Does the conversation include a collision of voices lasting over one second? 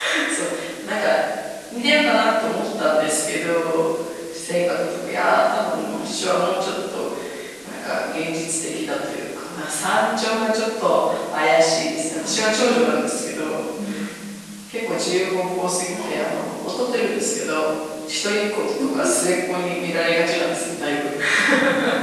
Yes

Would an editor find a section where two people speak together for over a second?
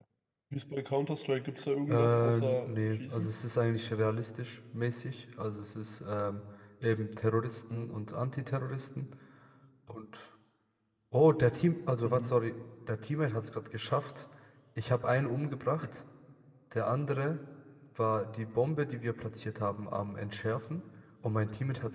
Yes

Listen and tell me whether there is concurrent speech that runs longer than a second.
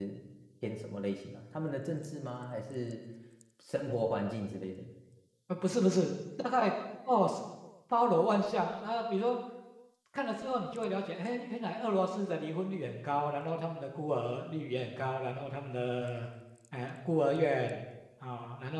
No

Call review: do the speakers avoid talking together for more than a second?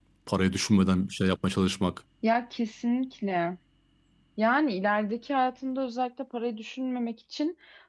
Yes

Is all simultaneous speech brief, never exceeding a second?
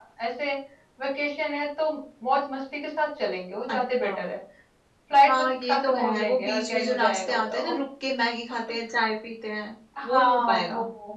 No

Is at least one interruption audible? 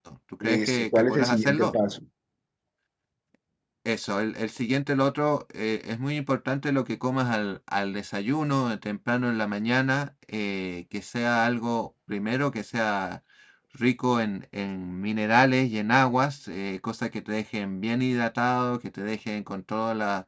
Yes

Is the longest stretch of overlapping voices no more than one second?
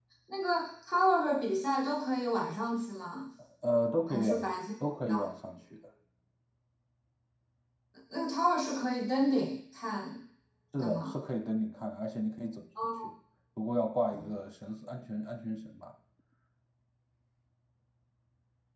Yes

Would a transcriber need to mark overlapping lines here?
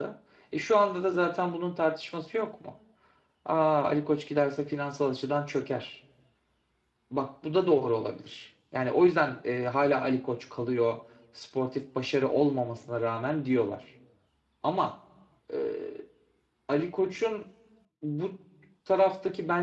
No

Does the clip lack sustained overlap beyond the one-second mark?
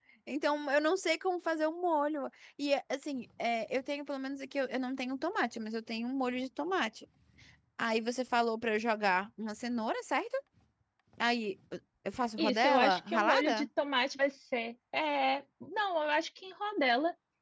No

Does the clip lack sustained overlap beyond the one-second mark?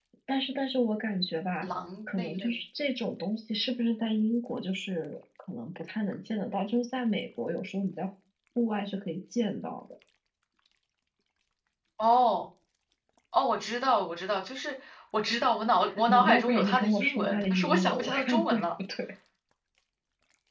No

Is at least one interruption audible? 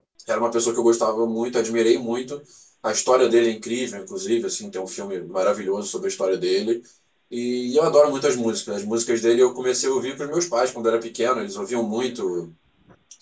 No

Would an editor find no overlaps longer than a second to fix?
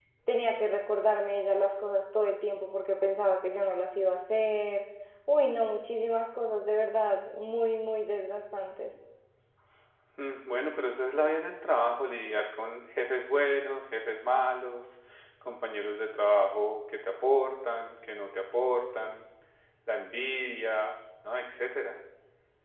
Yes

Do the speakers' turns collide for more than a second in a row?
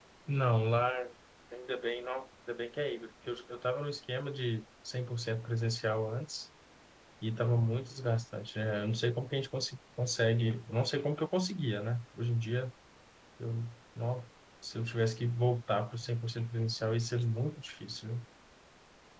No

